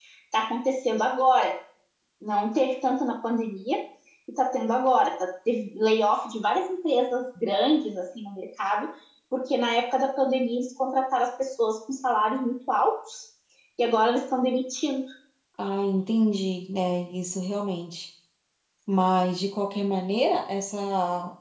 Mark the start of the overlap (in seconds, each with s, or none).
none